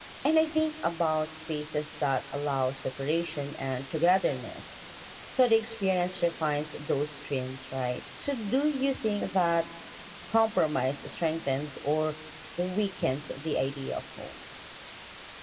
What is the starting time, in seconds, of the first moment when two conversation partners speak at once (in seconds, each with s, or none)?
none